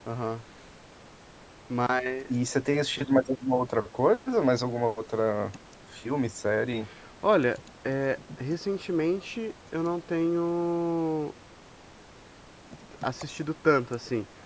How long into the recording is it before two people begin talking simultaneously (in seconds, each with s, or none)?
none